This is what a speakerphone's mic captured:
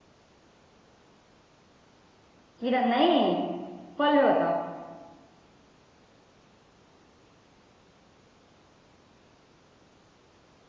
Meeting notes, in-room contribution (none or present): present